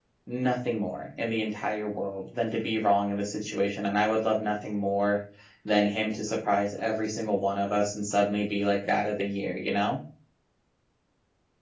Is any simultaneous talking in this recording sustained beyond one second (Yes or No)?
No